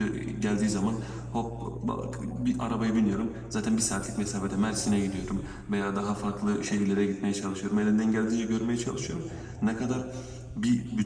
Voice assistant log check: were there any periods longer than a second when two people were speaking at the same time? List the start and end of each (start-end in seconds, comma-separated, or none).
none